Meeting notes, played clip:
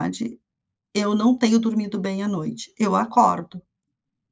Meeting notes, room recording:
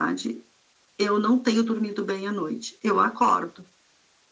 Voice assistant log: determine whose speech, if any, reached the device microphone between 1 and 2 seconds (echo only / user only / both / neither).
echo only